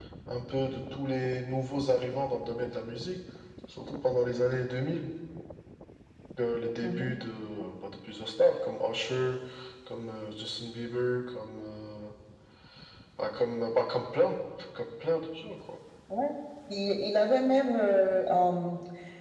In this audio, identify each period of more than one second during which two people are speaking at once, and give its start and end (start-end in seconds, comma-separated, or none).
none